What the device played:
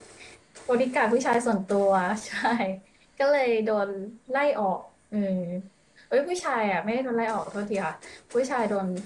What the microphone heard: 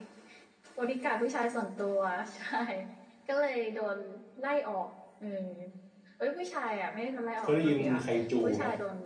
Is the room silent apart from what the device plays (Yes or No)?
No